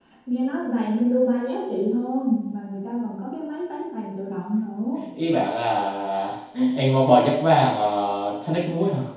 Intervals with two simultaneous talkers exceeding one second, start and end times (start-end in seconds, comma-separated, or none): none